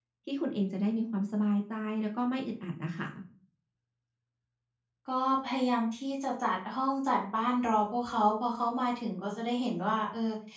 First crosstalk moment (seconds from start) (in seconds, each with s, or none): none